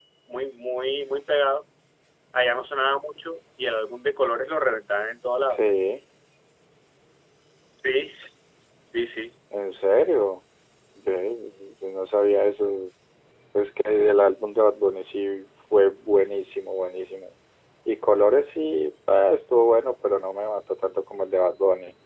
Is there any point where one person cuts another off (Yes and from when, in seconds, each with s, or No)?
No